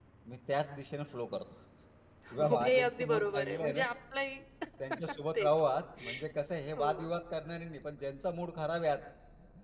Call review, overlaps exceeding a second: present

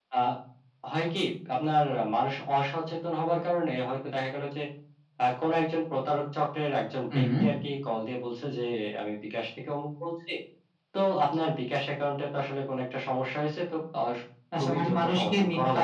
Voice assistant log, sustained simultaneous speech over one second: present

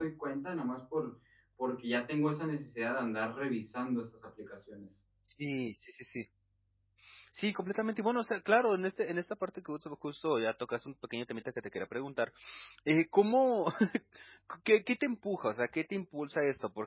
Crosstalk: none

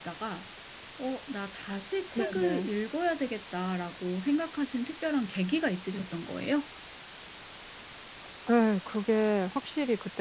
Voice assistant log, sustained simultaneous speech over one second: none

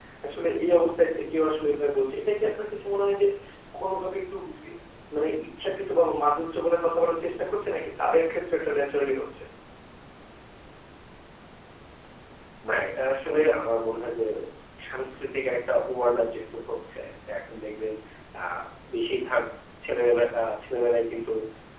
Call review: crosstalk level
none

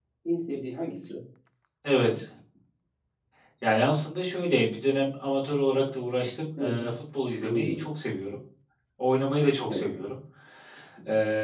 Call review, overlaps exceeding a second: none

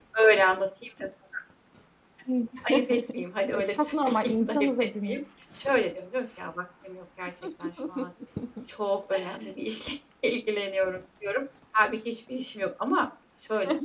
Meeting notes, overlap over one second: present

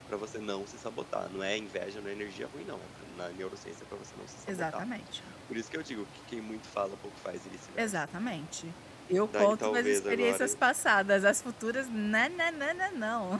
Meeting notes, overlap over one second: present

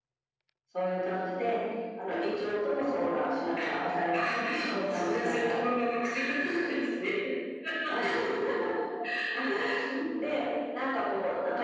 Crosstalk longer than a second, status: present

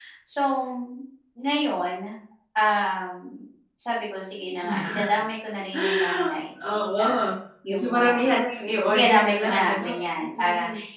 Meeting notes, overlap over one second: present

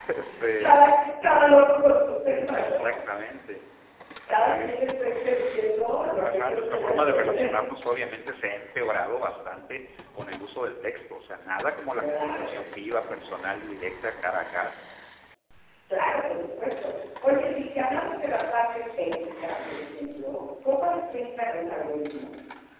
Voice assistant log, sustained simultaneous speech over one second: present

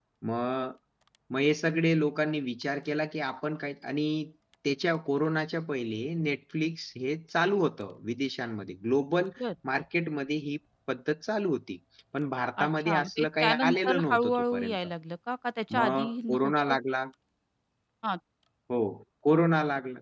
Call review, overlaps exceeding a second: present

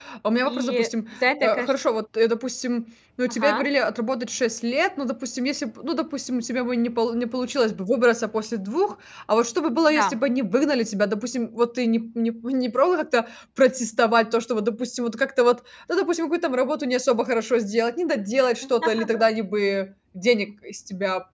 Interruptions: present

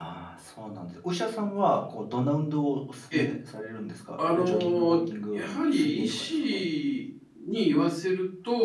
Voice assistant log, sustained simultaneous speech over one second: present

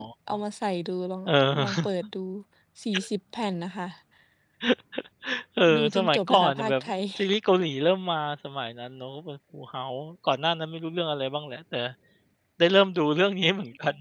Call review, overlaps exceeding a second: present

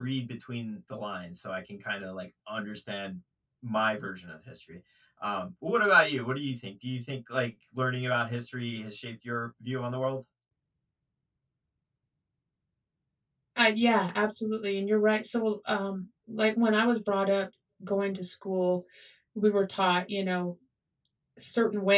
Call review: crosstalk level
none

